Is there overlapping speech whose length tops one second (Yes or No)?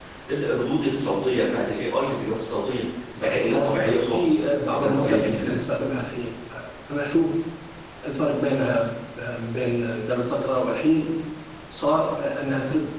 Yes